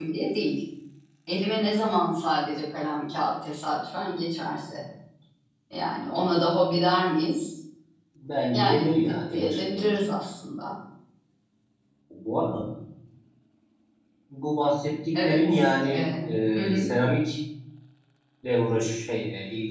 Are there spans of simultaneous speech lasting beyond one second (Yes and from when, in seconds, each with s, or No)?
Yes, from 8.5 s